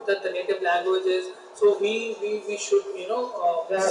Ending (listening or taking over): taking over